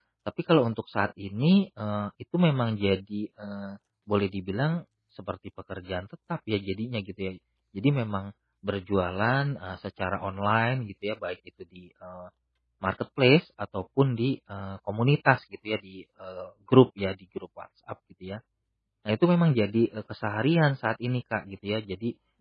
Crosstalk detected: No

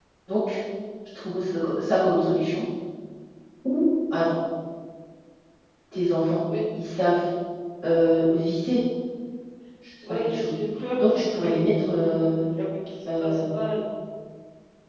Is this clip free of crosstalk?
No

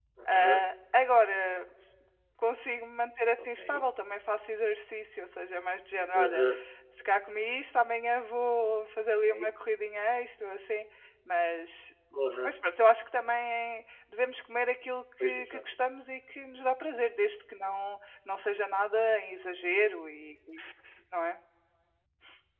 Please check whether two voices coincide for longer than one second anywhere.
No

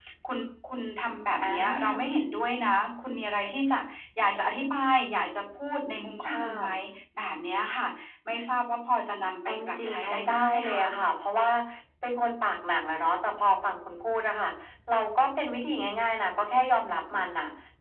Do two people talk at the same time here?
Yes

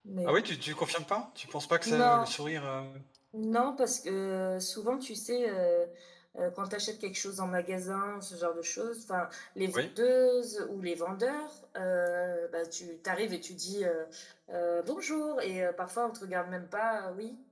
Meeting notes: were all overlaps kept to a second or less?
Yes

